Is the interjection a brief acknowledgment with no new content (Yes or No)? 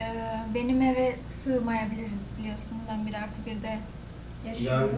No